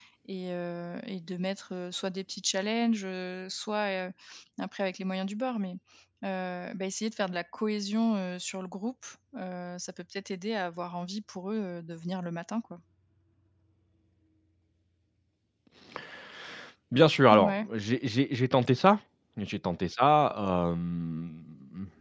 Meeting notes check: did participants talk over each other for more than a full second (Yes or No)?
No